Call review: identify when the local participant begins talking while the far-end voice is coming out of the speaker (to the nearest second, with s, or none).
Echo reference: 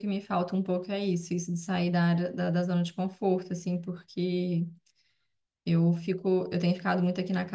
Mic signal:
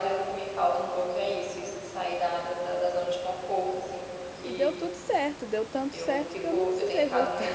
4 s